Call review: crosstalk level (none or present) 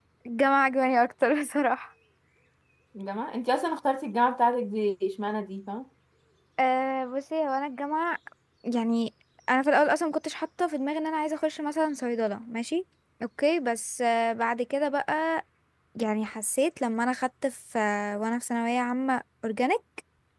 none